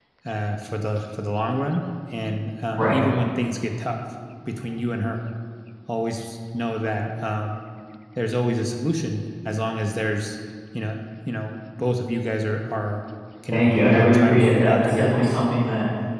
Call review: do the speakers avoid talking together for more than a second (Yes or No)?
No